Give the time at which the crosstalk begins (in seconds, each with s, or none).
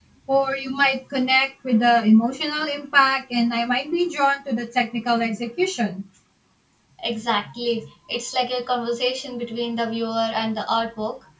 none